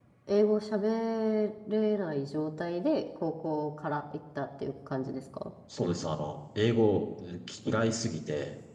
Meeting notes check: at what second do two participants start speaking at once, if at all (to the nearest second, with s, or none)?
none